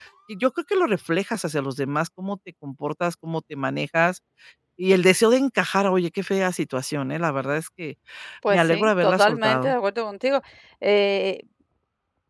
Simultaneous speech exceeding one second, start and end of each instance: 8.5-9.7

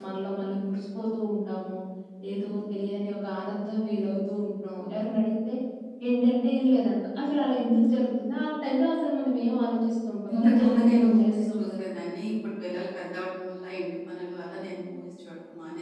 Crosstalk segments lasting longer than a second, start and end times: 10.3-11.9

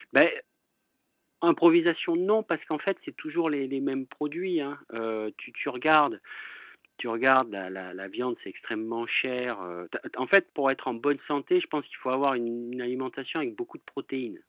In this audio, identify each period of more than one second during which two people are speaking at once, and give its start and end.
none

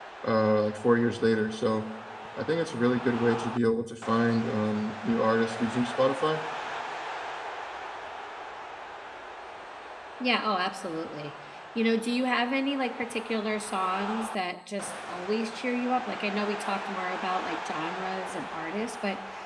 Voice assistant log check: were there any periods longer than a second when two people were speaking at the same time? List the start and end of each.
none

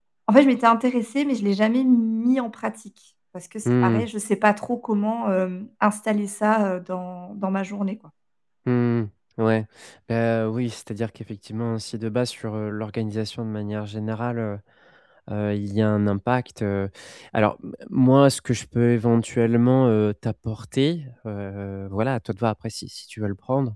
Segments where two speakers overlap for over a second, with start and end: none

